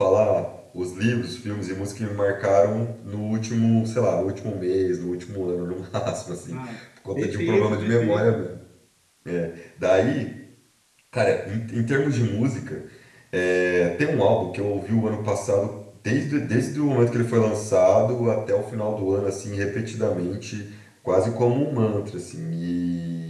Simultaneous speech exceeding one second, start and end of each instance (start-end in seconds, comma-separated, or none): 7.2-8.4